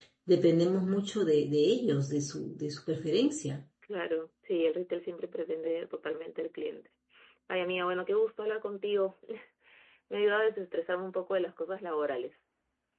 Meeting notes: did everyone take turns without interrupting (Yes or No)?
Yes